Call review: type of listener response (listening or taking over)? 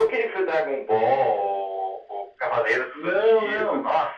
taking over